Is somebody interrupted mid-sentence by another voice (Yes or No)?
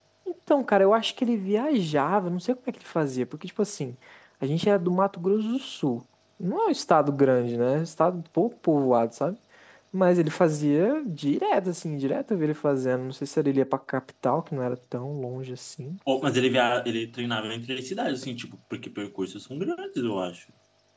No